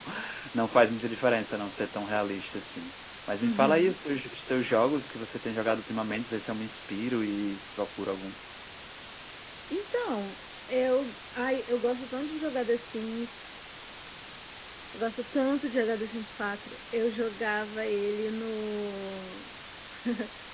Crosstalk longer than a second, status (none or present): none